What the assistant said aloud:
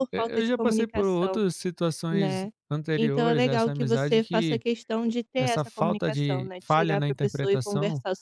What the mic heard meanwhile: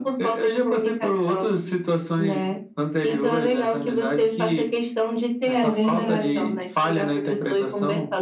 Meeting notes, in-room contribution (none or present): present